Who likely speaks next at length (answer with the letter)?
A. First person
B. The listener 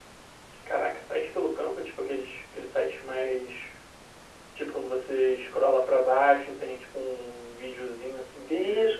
B